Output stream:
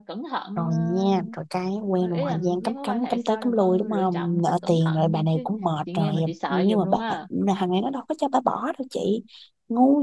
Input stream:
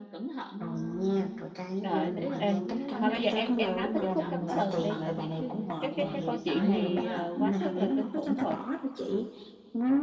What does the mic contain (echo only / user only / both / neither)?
both